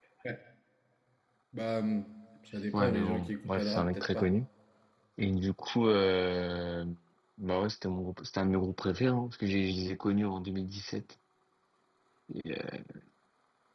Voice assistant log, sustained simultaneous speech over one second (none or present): present